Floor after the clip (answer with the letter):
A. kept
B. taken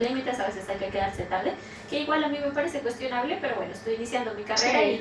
A